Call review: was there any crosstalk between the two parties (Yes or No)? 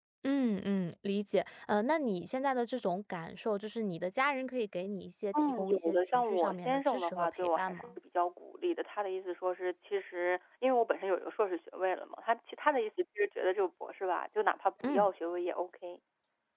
Yes